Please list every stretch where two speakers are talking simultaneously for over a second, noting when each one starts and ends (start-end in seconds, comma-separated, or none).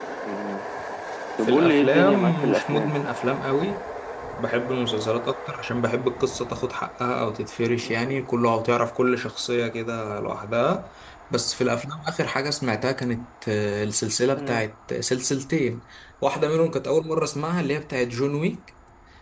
1.4-2.9